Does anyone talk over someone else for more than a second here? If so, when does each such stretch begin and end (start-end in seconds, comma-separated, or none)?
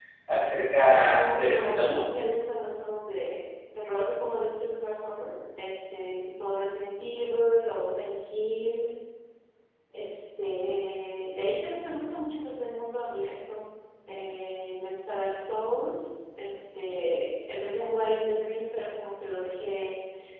0.8-2.0